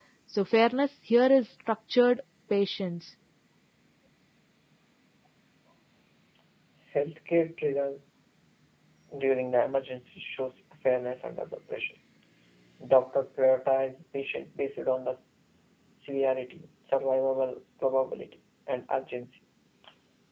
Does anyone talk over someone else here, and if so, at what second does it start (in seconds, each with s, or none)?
none